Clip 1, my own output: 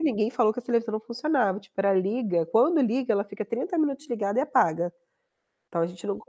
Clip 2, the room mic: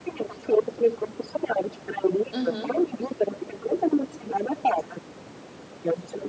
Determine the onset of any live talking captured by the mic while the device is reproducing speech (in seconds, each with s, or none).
2.3 s